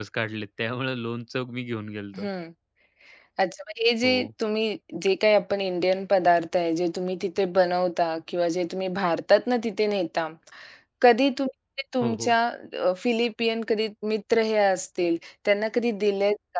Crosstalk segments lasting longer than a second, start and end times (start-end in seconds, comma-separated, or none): none